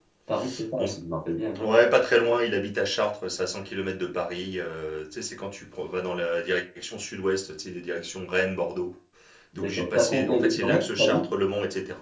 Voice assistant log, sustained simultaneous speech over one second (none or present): present